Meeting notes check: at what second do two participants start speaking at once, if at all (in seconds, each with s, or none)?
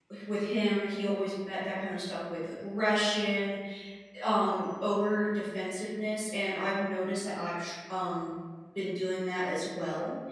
none